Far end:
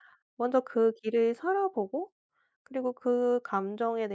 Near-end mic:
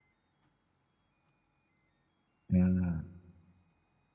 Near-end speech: present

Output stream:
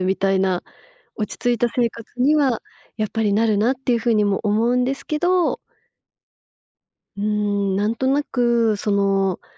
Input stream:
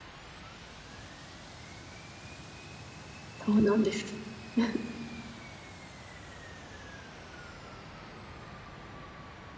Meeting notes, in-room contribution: present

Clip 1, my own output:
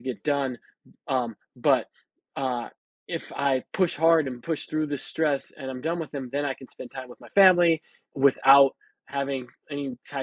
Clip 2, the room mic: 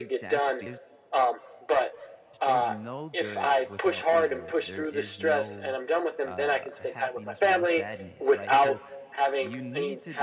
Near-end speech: present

